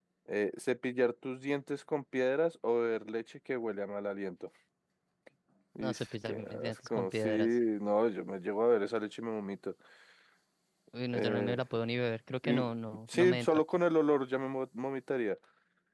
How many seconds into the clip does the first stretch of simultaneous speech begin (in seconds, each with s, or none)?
5.8 s